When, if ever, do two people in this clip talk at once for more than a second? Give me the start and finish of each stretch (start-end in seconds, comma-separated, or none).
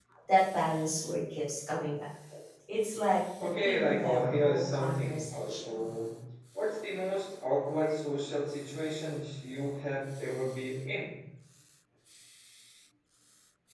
3.4-5.9